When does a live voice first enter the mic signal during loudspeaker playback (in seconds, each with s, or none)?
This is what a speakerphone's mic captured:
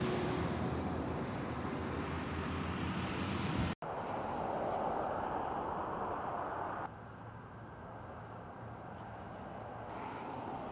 none